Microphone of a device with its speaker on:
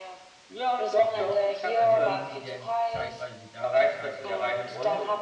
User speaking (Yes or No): Yes